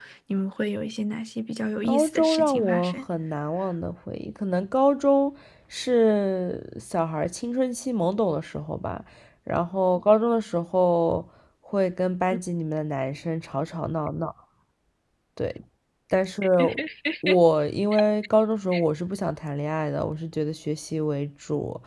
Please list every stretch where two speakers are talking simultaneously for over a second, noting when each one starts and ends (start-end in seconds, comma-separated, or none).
1.8-3.0